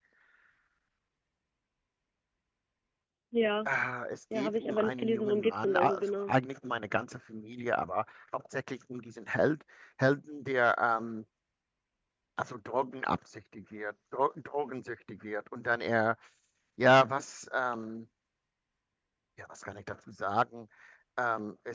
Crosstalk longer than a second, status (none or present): present